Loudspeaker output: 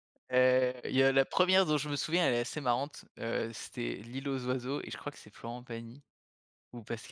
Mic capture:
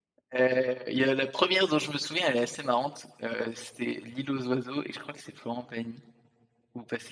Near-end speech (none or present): none